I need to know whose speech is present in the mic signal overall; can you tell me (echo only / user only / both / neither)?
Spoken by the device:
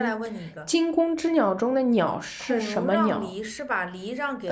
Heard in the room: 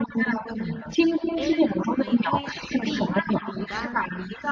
both